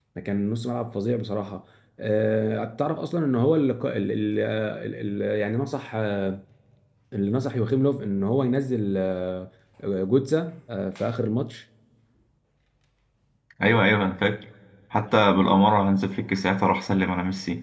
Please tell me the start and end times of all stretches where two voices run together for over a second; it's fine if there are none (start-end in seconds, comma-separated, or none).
none